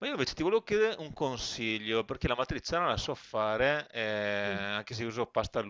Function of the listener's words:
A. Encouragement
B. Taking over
A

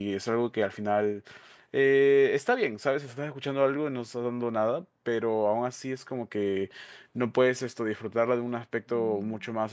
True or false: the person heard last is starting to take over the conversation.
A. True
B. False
B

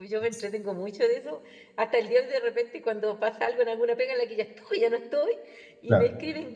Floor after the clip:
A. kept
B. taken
A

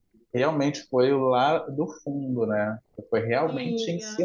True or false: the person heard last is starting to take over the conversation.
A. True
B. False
B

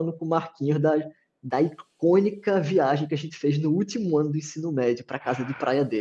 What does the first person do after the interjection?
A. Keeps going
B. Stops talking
B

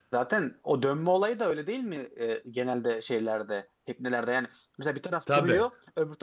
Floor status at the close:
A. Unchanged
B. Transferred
A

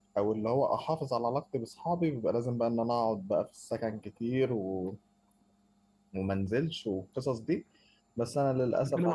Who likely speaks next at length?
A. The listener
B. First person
A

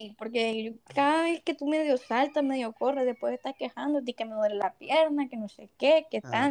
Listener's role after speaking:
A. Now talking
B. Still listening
A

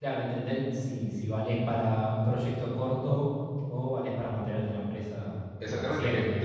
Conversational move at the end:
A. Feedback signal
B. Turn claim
B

